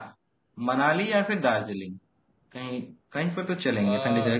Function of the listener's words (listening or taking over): listening